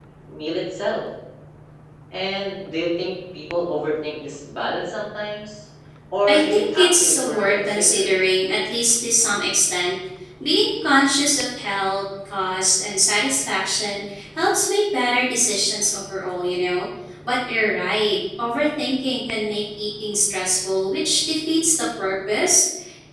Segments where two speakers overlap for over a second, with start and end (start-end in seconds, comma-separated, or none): 6.3-8.3